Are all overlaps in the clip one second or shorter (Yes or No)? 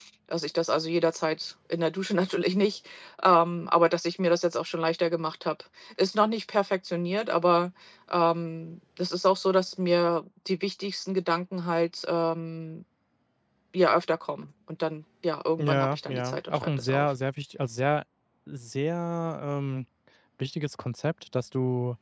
No